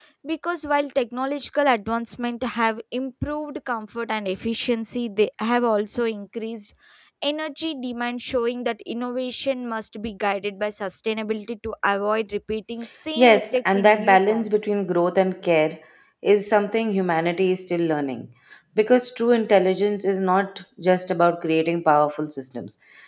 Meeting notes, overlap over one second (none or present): present